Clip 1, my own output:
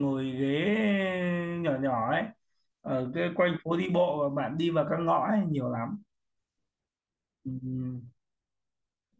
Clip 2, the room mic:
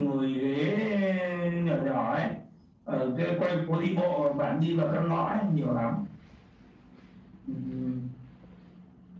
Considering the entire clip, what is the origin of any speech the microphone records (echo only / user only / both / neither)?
echo only